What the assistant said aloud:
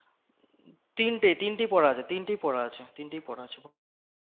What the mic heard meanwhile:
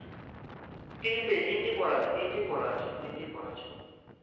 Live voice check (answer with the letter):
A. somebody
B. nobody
B